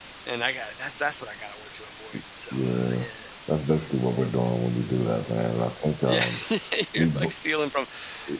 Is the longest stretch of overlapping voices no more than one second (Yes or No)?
Yes